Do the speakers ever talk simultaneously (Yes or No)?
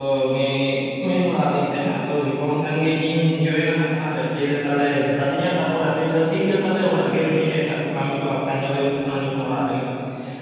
No